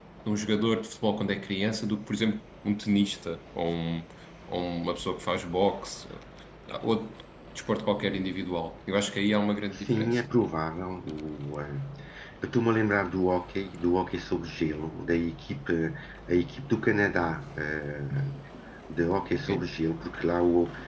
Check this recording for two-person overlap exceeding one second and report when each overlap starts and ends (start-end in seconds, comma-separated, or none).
none